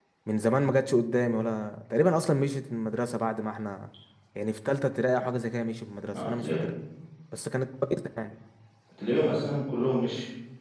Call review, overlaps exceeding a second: none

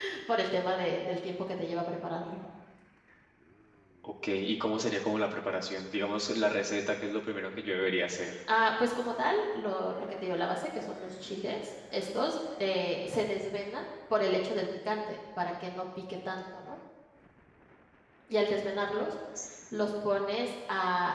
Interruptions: none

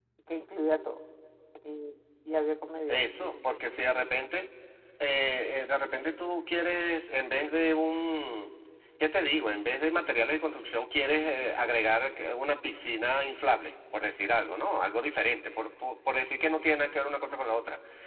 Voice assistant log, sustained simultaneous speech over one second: none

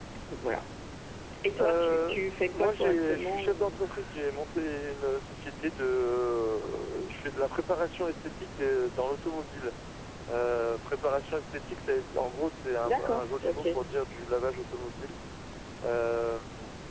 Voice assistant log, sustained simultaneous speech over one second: present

